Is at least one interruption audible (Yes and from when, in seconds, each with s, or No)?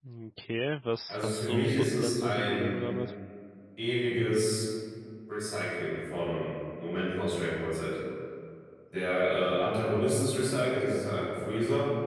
Yes, from 1.1 s